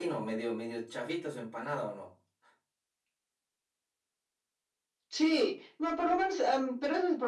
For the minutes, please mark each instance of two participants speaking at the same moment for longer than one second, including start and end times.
none

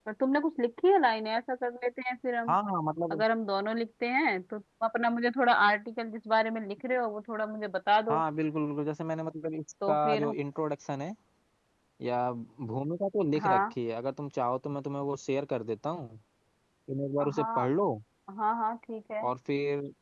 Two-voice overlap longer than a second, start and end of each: none

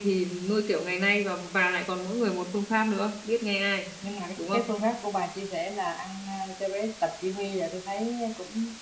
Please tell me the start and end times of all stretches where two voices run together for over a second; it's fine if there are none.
none

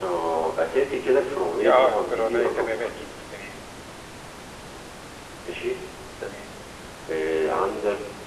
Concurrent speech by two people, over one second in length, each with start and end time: 1.6-2.9

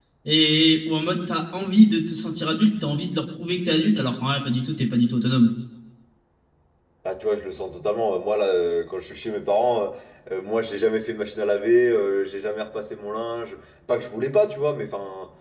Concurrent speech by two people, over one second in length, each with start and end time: none

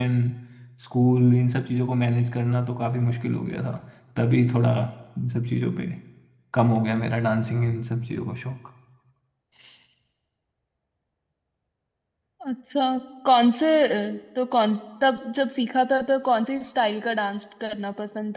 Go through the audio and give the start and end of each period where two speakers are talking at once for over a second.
none

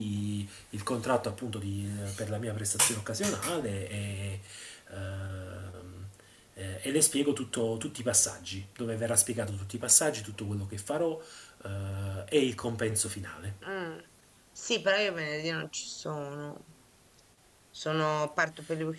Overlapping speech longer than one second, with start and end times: none

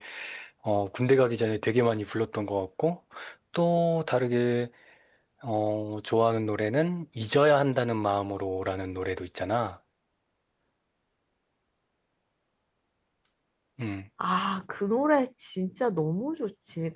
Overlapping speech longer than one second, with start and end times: none

